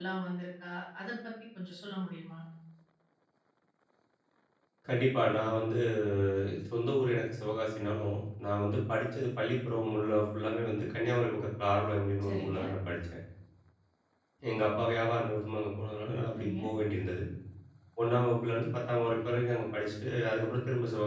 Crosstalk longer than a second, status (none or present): none